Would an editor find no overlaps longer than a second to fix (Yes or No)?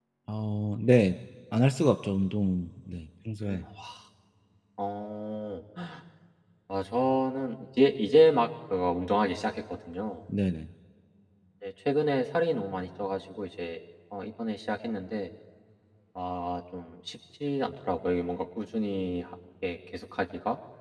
Yes